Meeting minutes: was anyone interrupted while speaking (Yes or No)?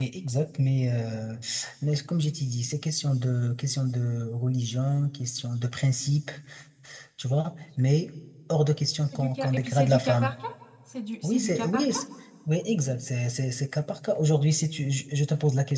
Yes